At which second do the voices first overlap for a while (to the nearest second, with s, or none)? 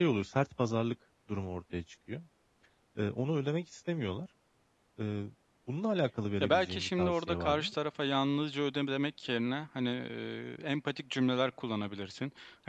6 s